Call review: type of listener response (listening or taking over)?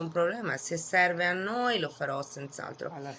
listening